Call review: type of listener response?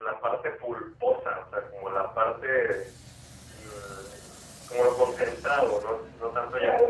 taking over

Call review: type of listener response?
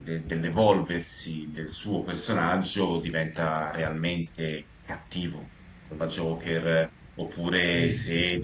listening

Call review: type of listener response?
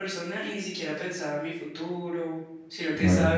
listening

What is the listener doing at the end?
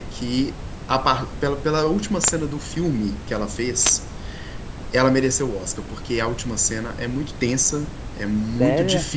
listening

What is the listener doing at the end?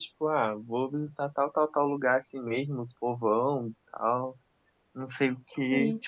listening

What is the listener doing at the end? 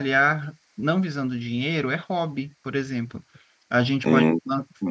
listening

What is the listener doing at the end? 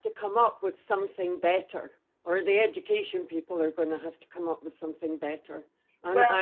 listening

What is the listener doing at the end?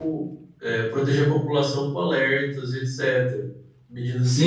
taking over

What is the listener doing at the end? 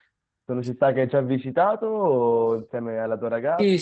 taking over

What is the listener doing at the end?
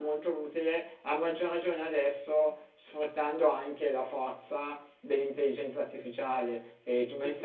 taking over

